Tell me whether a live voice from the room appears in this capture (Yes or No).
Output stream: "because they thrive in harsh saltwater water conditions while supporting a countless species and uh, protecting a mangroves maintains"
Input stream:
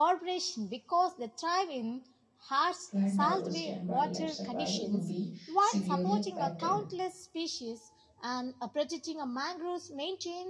Yes